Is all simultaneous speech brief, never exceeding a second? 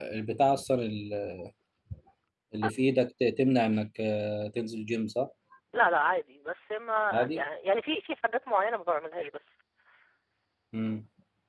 Yes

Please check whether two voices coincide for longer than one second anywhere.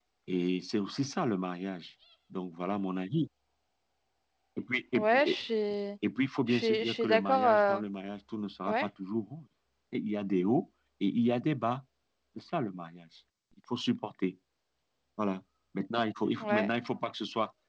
Yes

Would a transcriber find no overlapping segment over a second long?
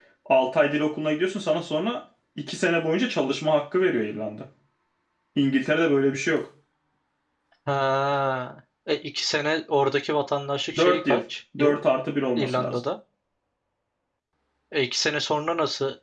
Yes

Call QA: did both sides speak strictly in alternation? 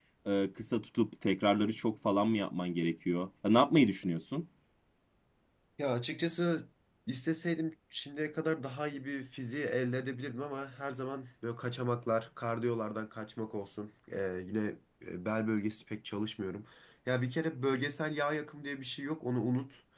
Yes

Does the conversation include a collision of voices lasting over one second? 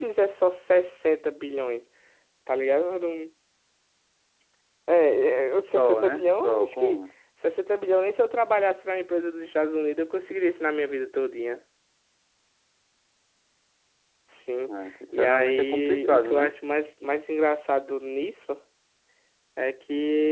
Yes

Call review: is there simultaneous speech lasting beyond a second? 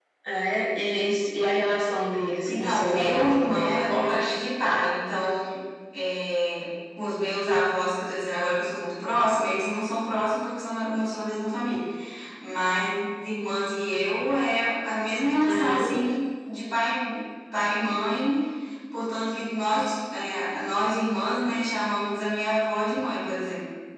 Yes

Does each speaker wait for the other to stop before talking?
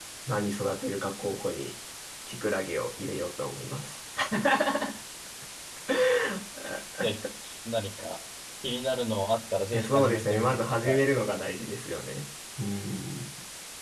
No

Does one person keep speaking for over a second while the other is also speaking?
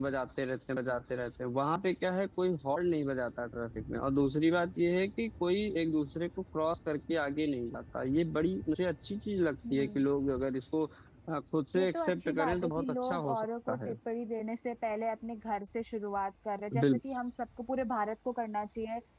Yes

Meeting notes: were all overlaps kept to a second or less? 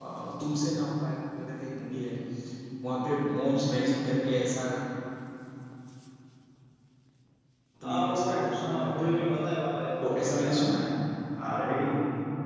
No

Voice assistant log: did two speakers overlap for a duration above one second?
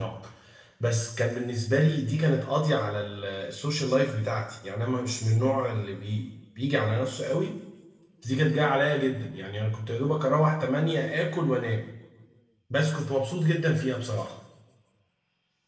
No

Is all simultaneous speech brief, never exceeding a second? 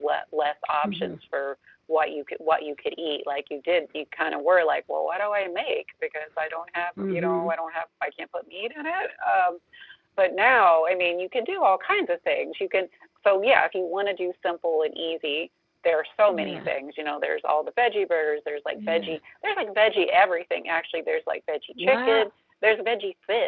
Yes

